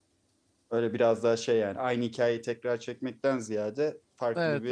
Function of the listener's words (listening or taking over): listening